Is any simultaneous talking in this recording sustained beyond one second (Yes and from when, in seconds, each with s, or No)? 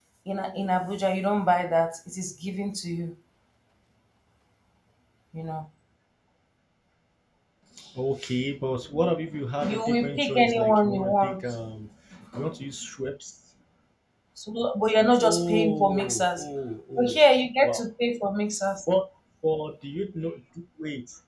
Yes, from 9.6 s